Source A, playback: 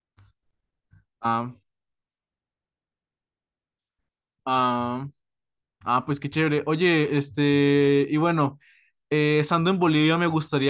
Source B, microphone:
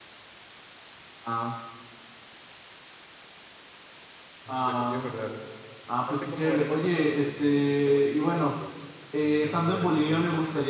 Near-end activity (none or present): present